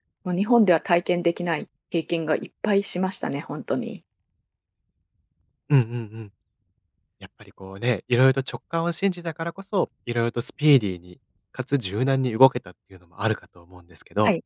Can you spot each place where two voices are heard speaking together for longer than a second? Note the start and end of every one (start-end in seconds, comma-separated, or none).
none